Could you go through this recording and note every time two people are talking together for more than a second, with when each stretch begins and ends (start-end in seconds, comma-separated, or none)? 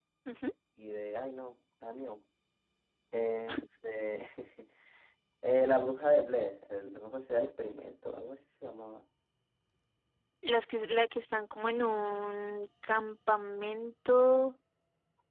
none